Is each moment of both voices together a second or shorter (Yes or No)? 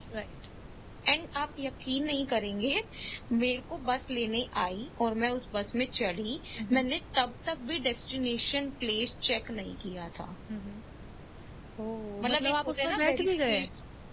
No